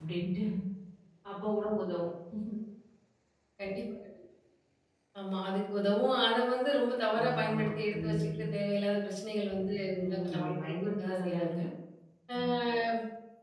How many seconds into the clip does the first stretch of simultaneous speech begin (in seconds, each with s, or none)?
7.2 s